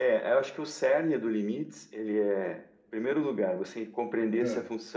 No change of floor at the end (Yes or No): Yes